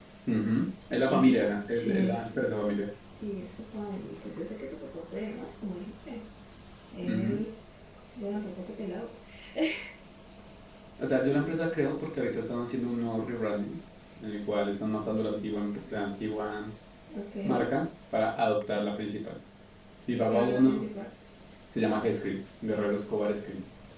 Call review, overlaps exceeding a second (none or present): present